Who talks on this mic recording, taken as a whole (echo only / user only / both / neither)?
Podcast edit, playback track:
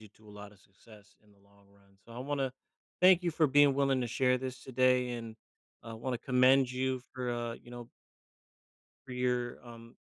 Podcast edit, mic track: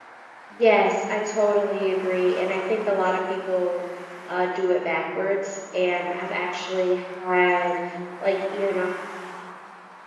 user only